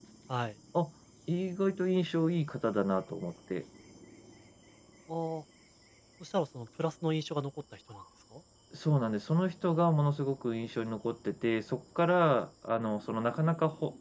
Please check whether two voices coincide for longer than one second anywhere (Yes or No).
No